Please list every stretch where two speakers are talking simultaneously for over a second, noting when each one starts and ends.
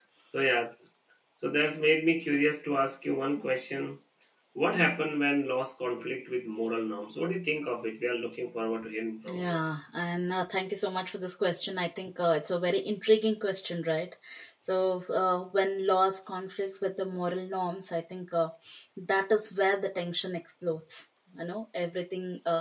none

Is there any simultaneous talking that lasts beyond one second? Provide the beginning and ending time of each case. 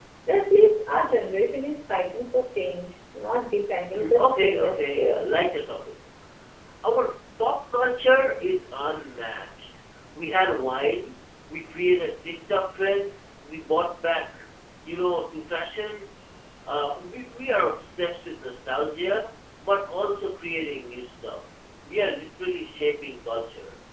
3.9-5.2

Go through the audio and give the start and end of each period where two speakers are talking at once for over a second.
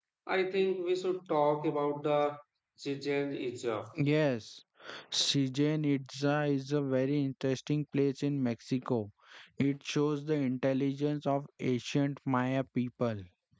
none

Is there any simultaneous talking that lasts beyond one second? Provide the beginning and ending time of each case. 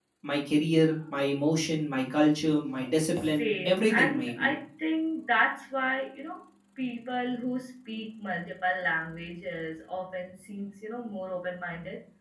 3.2-4.5

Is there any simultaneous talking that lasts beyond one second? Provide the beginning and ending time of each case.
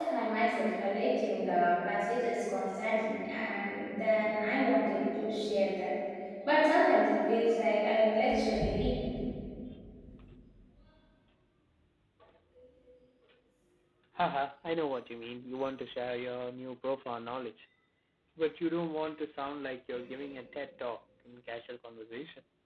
none

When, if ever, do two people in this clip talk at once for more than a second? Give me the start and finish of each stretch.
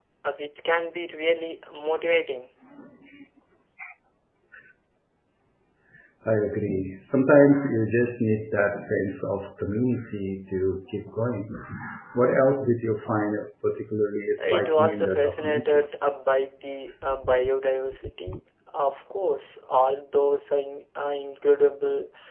14.4-15.8

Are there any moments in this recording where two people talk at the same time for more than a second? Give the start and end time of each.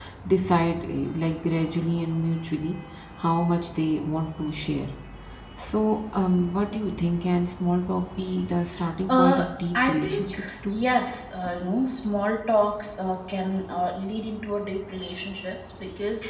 9.1-10.8

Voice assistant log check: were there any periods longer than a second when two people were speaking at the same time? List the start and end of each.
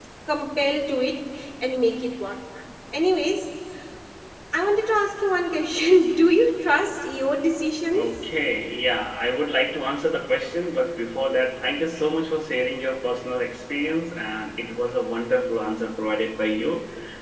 none

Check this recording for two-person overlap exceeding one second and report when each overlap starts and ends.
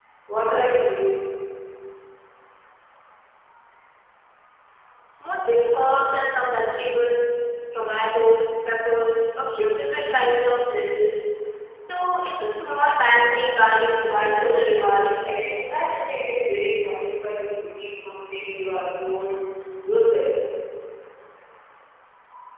14.0-15.3

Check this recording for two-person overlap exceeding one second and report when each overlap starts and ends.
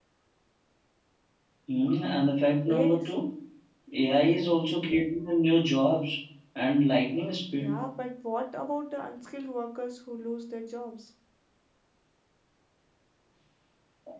none

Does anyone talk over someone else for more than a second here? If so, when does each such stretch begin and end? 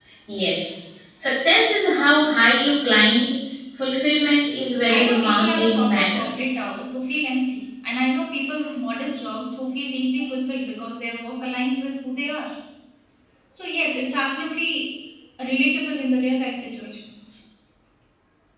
4.9-6.3

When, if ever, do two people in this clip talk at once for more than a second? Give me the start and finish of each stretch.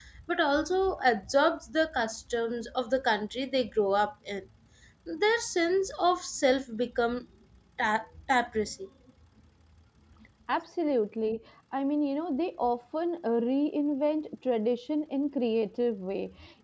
none

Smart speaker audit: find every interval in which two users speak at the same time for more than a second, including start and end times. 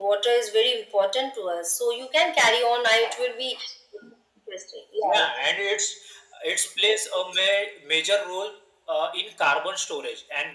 none

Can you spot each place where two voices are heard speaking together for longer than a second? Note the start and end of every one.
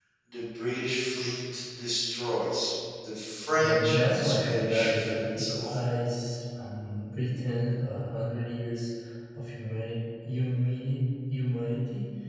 3.6-5.8

